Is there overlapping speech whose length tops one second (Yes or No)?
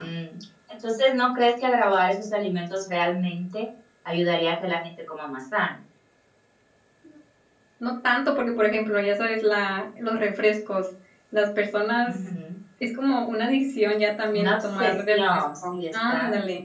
Yes